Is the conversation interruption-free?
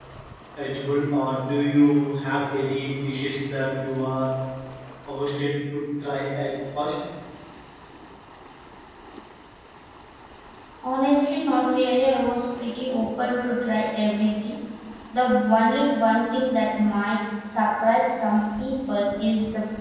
Yes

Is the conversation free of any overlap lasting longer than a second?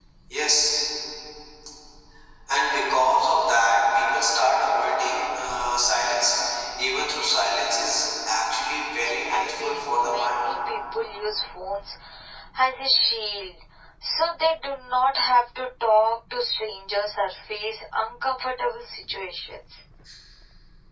No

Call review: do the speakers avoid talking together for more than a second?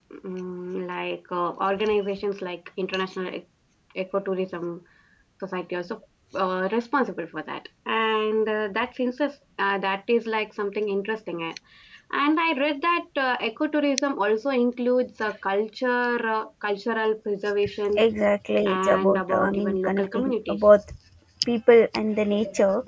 No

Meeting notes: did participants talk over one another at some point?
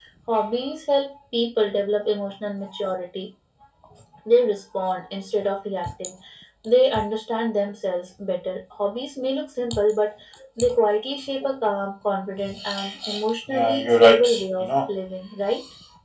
Yes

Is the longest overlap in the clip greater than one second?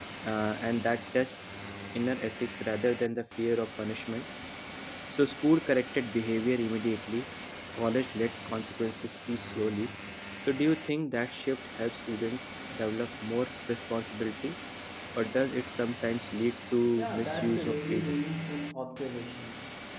Yes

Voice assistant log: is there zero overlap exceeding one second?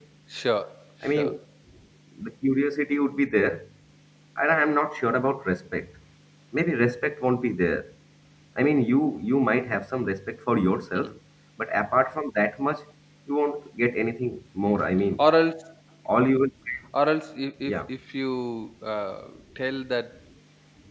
Yes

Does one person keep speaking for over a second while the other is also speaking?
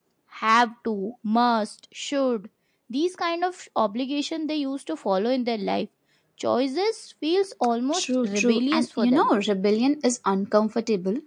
Yes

